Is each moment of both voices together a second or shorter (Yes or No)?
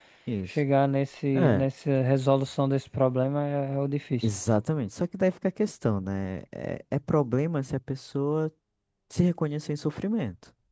Yes